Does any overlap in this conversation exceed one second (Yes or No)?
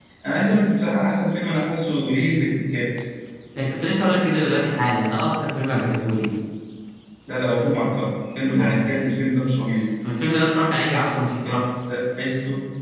No